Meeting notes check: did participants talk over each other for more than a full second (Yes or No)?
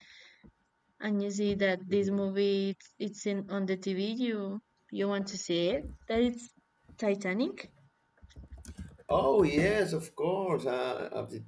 No